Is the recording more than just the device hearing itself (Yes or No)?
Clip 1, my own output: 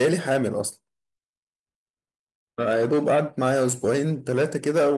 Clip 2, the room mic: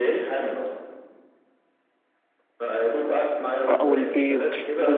Yes